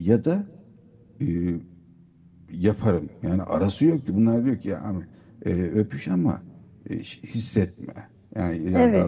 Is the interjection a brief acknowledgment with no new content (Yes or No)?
No